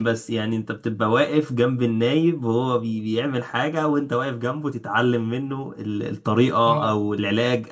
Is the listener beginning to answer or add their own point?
No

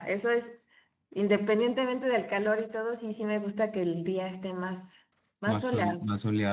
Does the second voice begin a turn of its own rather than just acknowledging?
Yes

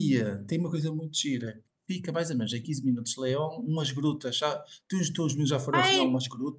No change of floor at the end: No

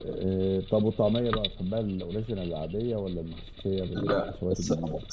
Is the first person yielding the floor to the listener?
Yes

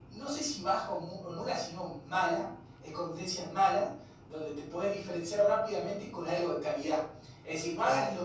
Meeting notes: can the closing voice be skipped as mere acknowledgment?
Yes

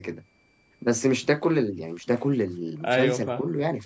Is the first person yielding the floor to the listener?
No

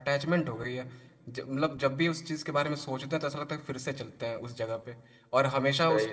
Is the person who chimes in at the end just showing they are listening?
Yes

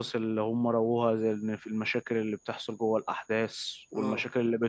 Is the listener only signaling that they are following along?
Yes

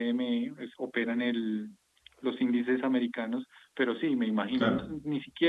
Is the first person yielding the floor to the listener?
No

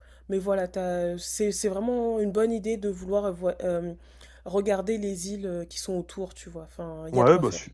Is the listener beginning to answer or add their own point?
Yes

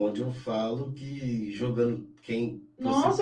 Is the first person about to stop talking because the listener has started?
Yes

